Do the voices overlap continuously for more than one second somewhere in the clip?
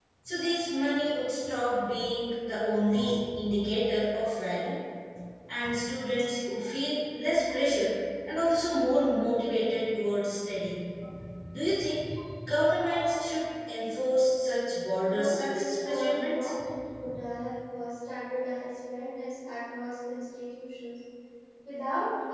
Yes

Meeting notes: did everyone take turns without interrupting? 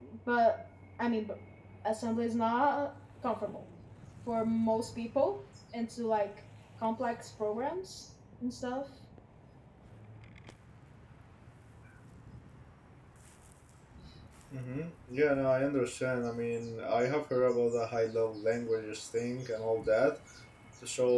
Yes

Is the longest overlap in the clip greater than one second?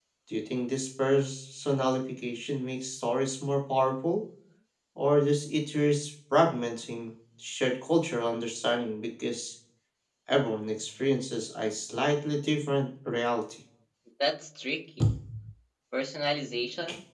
No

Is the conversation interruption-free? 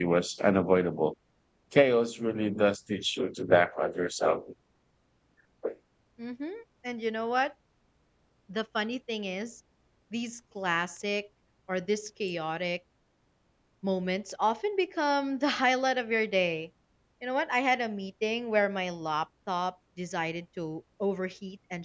Yes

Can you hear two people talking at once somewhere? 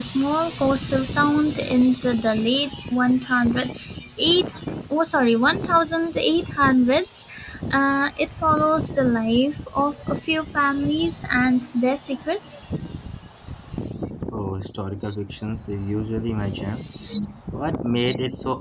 No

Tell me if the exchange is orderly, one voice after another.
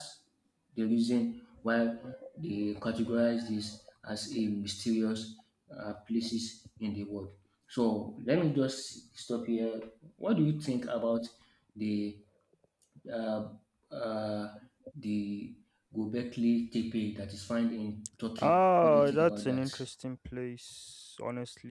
No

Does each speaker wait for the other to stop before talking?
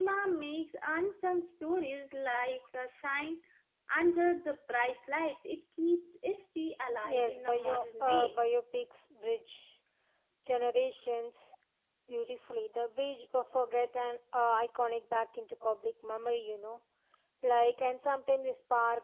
No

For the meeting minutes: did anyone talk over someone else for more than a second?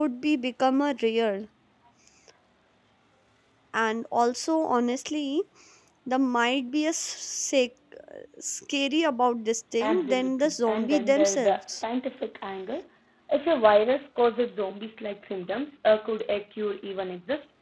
Yes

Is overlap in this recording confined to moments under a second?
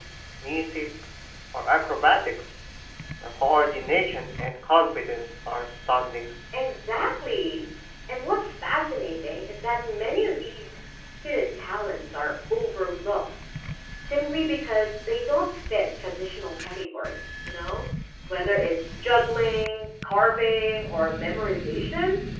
Yes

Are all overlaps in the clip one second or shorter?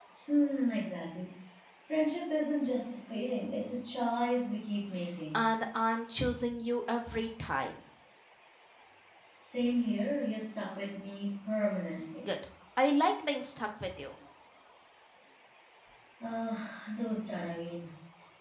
Yes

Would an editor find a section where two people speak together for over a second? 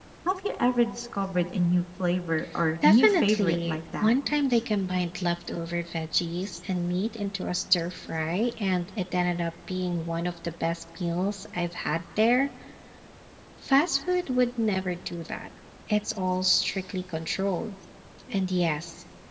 Yes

